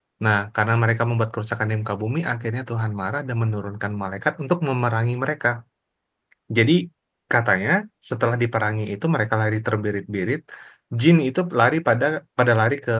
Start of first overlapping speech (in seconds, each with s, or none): none